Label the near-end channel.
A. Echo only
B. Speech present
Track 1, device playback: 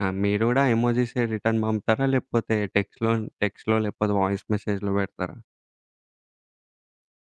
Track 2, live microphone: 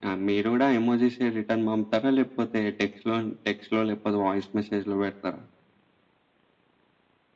A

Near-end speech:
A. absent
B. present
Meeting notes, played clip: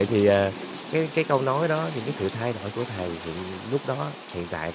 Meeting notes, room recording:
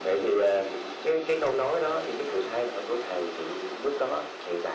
A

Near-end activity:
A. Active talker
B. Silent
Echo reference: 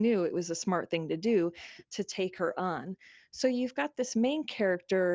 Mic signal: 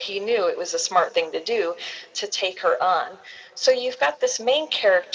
B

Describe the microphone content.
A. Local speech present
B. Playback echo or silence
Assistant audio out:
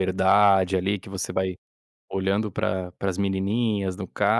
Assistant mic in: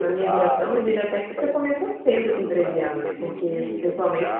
A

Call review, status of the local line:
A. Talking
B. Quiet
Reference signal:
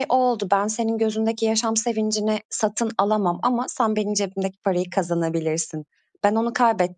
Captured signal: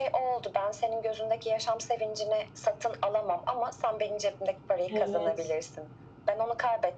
A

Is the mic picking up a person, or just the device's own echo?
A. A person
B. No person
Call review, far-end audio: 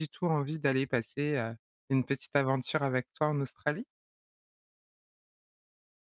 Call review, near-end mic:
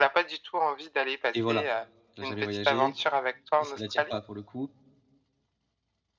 A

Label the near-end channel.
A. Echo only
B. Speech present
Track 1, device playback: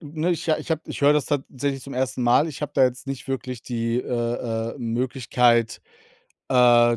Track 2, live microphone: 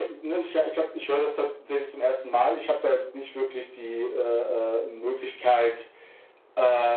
A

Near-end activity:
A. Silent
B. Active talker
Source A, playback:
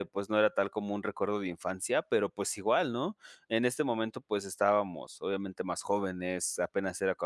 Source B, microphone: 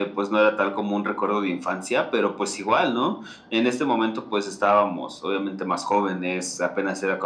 A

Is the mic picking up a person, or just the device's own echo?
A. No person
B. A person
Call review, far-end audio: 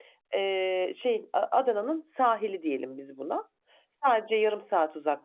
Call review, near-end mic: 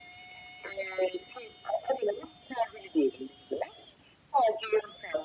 A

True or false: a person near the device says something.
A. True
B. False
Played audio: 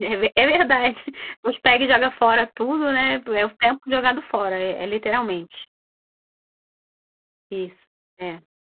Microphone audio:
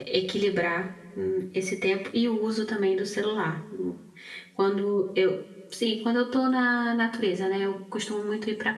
A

